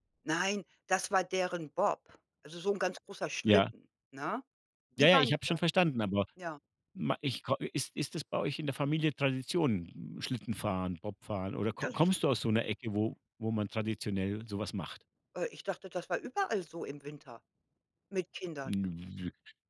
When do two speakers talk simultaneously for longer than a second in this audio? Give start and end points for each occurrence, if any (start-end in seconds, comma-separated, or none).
none